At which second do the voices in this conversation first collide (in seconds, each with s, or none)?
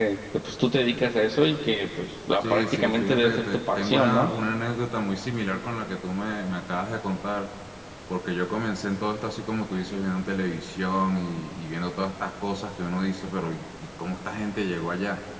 2.4 s